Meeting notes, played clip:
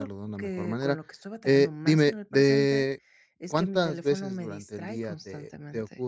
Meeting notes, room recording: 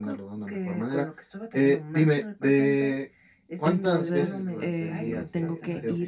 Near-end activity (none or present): present